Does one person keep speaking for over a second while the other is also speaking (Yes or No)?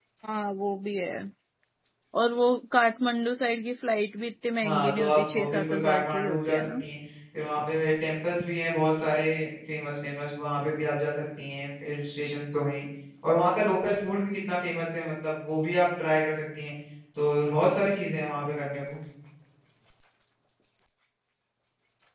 Yes